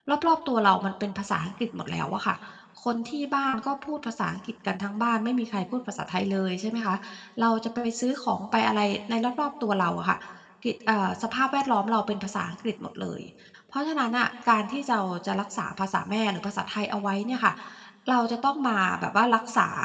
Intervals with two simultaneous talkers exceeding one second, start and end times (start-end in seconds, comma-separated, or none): none